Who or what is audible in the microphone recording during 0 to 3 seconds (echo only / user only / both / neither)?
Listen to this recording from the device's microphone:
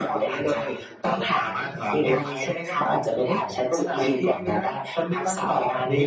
echo only